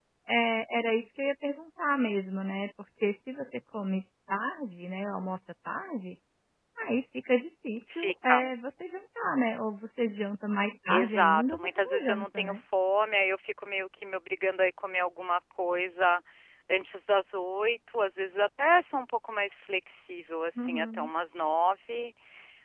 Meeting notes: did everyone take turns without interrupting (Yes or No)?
No